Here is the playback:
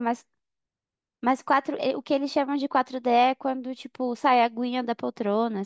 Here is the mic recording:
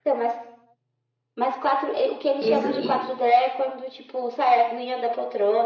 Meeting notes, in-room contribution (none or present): present